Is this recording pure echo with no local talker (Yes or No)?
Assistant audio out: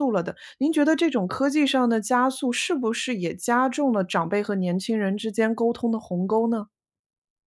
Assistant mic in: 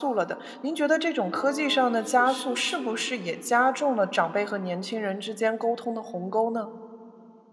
No